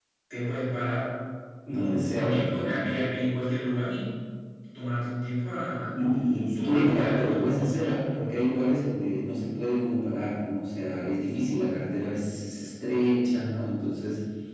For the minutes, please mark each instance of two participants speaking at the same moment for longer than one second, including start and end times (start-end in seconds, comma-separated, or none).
1.7-3.1, 6.6-7.9